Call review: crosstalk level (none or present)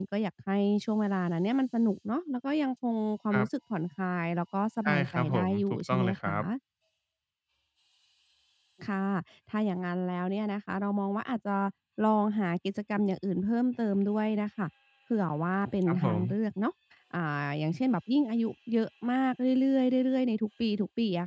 present